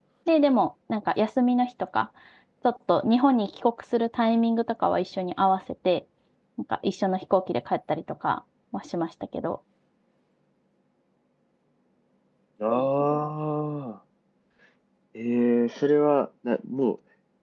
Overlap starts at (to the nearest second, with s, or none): none